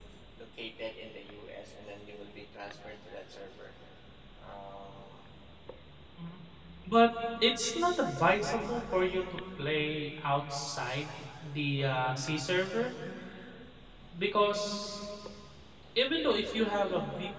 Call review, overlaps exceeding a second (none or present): none